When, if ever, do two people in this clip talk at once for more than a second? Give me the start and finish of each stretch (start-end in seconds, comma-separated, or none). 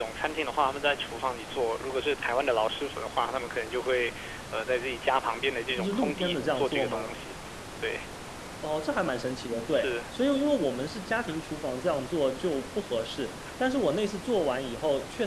5.8-7.1